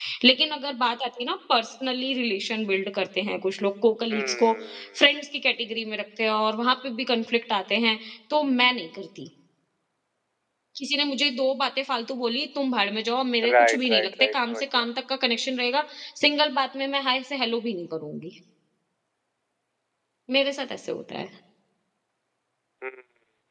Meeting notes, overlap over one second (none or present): present